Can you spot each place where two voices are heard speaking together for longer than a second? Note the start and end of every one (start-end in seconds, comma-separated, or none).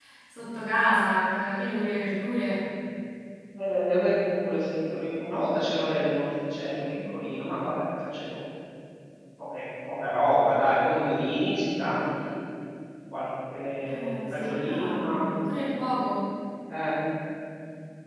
13.9-15.2